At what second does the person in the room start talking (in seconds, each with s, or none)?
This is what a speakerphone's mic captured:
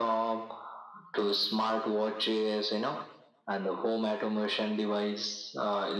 none